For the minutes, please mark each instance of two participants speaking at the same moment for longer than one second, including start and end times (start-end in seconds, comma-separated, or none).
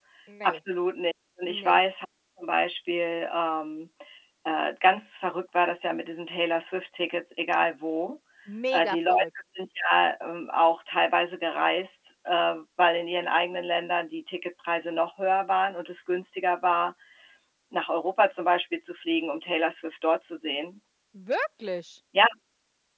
none